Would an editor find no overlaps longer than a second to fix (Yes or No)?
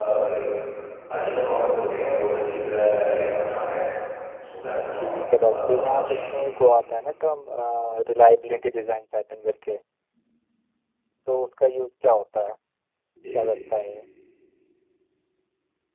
No